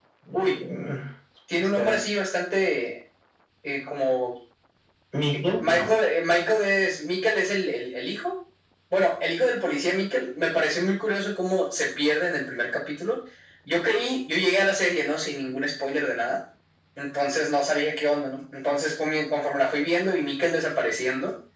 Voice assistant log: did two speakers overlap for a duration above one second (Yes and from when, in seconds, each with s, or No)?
No